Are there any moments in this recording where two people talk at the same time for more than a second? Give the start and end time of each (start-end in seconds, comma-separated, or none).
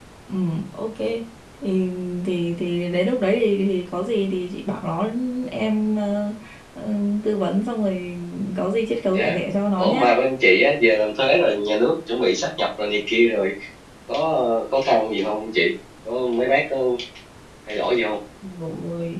none